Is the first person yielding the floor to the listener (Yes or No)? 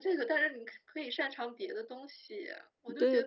Yes